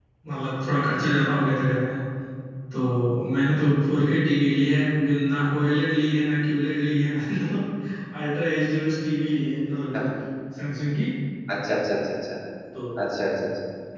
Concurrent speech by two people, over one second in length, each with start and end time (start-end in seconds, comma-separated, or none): none